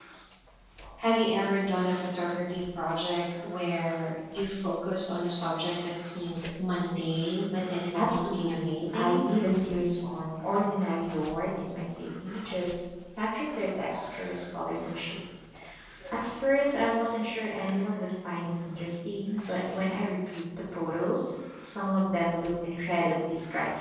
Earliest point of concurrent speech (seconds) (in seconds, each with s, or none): 7.9 s